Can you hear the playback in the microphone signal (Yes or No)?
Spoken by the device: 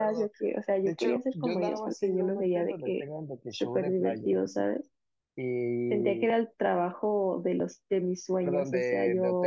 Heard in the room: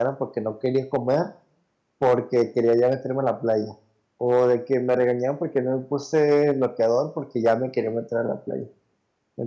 No